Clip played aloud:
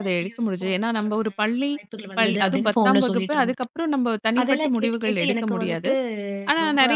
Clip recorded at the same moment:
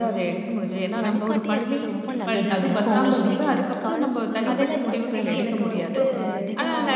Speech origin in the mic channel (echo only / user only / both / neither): both